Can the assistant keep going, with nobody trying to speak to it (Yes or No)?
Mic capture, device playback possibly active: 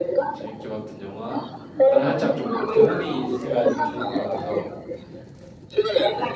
No